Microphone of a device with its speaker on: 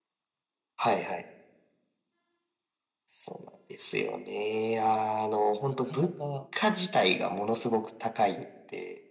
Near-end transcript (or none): なかなか